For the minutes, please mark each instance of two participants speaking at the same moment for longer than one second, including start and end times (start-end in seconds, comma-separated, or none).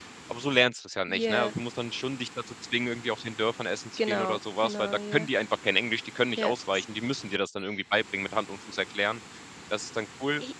4.0-5.3